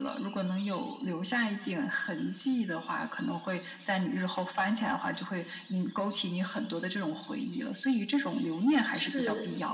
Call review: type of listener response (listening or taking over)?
taking over